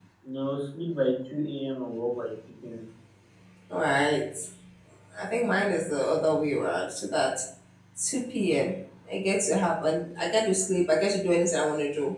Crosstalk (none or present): none